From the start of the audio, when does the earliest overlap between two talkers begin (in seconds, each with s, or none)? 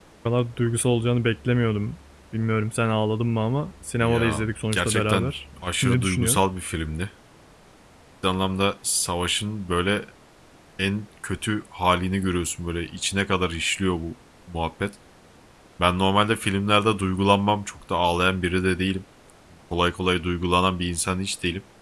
4.0 s